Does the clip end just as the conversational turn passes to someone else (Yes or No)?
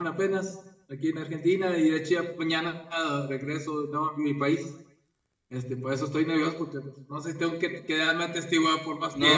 Yes